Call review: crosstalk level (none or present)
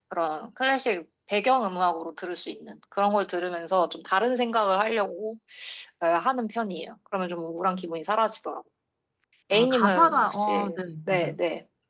present